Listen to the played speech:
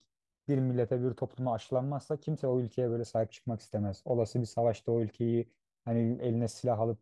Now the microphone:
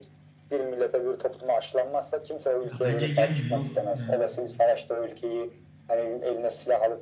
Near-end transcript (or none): Ya bence gelmiyor. Ee,